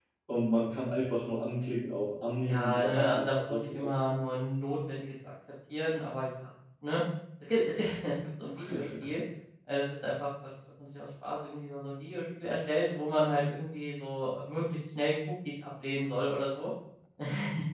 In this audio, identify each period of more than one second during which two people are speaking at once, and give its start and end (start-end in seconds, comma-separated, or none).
2.4-4.0